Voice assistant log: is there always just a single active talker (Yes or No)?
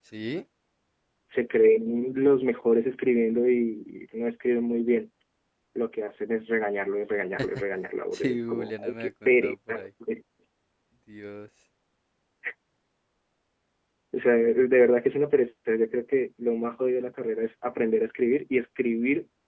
No